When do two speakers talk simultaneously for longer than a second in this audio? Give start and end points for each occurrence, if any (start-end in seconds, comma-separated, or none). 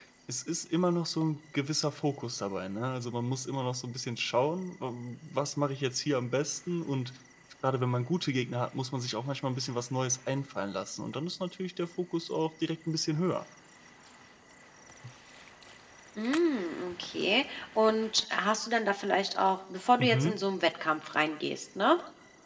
none